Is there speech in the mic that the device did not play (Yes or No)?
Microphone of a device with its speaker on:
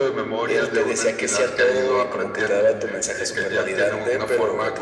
Yes